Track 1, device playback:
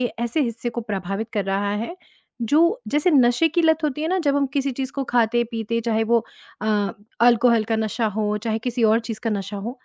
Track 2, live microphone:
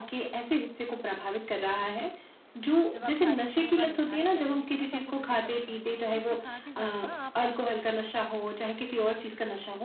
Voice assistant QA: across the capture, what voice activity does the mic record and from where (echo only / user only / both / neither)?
both